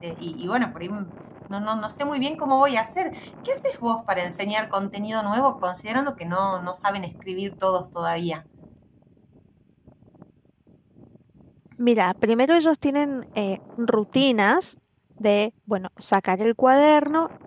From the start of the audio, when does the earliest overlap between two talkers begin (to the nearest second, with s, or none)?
none